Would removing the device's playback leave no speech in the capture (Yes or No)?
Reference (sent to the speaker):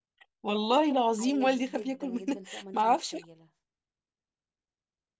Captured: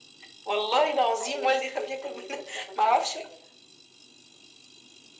Yes